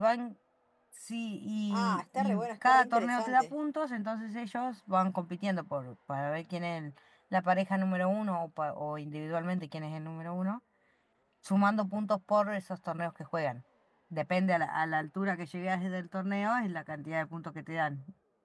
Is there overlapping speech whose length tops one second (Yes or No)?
Yes